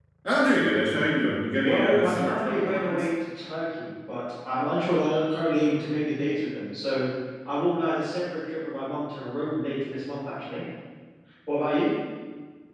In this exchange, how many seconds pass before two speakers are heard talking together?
2 s

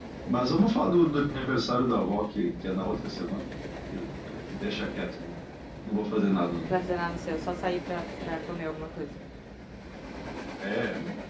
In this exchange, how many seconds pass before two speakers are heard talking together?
none

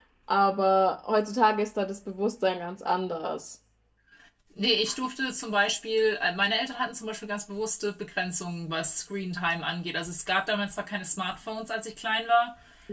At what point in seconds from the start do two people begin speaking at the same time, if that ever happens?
none

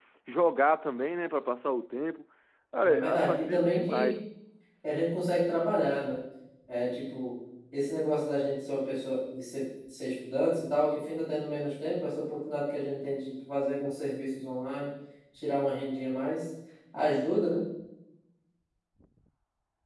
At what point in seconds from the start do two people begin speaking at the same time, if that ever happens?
3 s

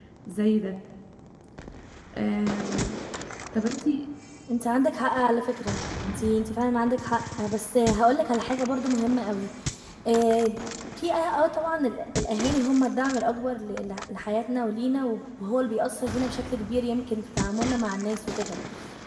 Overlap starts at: none

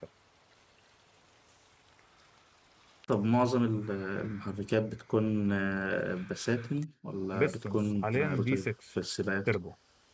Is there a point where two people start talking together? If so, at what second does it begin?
7 s

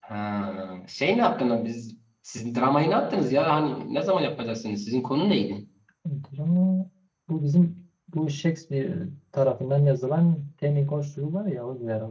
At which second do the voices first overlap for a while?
none

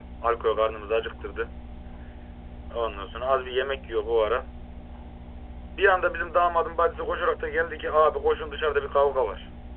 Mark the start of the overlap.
none

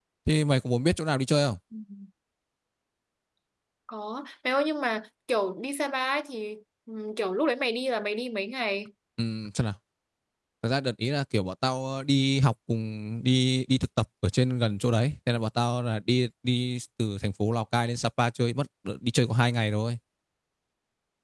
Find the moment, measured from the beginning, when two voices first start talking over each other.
none

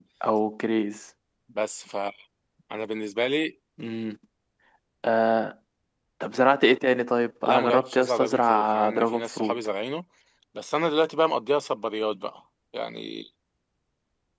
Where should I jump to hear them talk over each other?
7 s

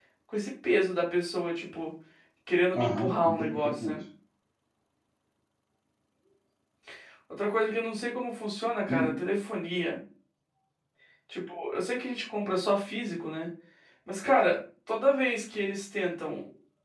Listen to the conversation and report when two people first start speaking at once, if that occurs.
3 s

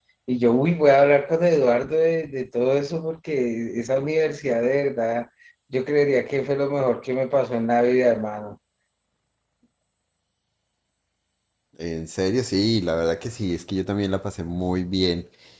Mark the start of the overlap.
none

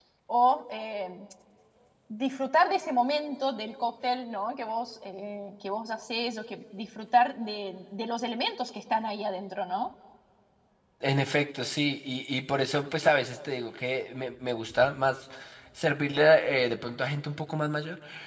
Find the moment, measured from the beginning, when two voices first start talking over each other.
none

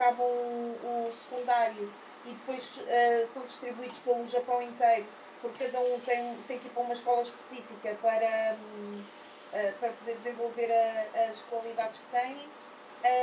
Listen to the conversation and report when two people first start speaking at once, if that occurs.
none

